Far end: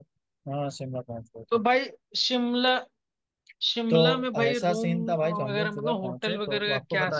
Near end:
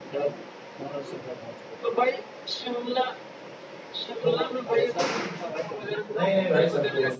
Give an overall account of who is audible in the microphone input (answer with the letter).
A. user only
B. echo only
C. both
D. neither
C